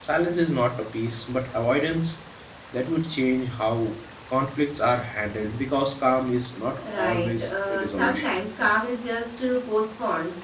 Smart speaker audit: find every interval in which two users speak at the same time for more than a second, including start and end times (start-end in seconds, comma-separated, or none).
6.9-8.2